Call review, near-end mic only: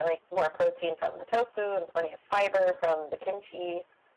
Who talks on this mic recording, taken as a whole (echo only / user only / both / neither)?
echo only